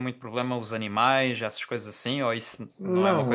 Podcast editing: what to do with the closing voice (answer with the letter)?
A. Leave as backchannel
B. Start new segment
B